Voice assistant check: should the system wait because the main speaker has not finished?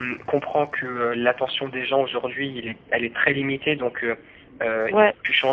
Yes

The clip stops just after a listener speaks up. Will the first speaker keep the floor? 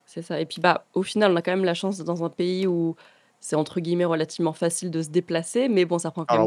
Yes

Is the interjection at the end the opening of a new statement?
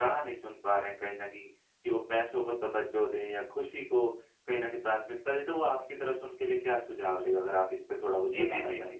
Yes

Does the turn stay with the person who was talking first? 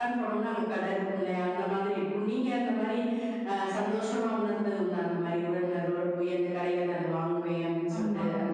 No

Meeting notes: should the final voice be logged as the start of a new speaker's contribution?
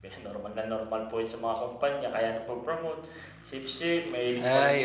Yes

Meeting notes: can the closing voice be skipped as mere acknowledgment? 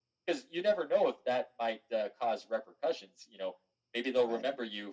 Yes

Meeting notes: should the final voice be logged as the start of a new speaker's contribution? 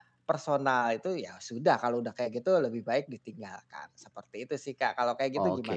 Yes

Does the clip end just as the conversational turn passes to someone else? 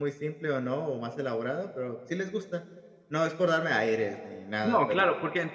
Yes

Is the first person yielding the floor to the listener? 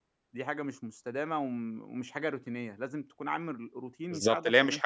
Yes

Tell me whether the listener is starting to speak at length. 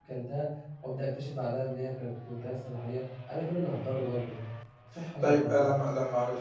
Yes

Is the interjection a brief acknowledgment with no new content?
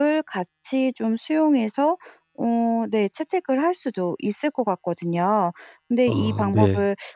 Yes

